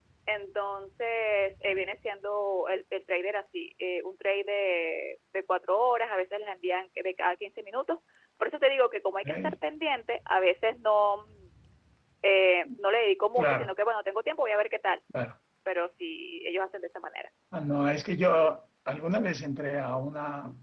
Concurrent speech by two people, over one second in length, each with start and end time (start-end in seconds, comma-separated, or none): none